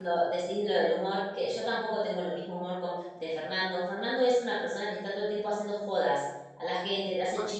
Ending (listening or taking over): listening